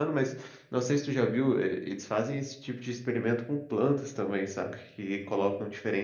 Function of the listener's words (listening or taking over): listening